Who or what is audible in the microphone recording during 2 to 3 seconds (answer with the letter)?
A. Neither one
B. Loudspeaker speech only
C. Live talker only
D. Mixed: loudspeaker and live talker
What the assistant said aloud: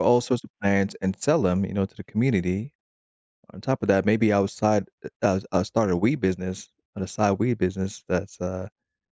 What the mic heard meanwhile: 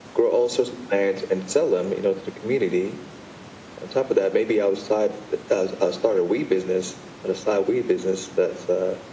B